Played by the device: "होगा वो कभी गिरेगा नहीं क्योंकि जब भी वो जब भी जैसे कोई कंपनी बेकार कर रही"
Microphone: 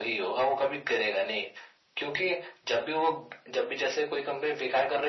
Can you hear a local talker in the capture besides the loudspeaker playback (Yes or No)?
No